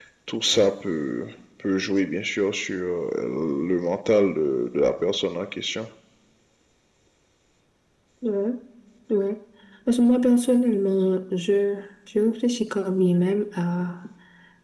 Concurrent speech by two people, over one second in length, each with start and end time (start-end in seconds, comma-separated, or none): none